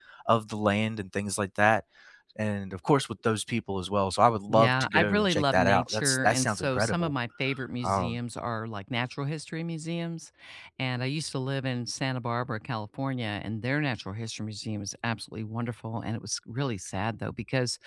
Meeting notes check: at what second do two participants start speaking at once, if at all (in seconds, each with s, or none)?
4.5 s